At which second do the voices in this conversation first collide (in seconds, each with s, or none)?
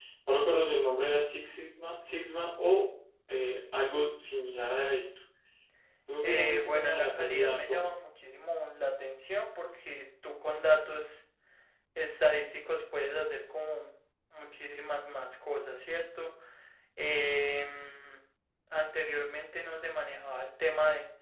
6.2 s